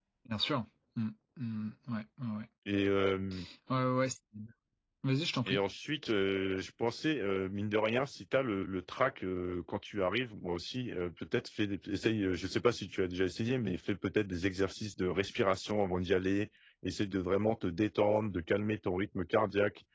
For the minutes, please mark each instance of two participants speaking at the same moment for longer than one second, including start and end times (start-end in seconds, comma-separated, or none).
none